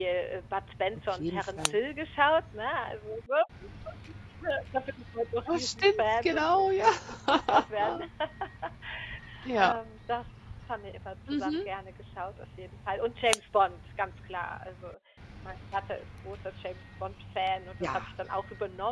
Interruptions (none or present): present